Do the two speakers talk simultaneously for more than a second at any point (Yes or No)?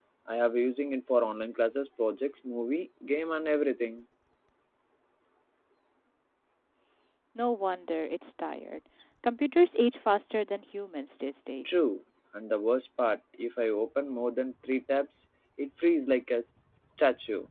No